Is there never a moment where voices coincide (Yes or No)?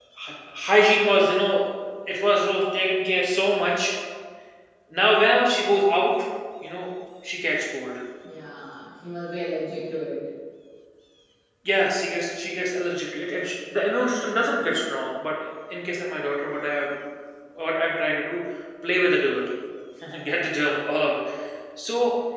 Yes